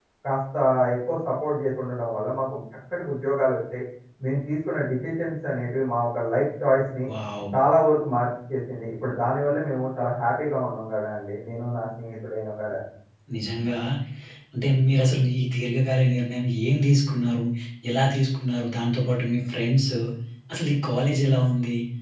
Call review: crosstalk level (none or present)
none